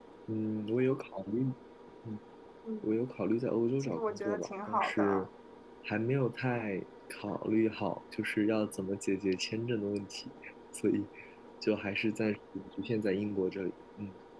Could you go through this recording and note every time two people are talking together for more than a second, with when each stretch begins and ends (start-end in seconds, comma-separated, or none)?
3.8-5.3